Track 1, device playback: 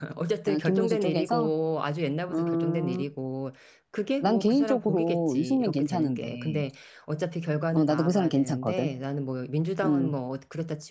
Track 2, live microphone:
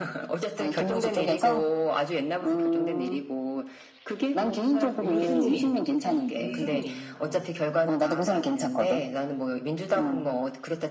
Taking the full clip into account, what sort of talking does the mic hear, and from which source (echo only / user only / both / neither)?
both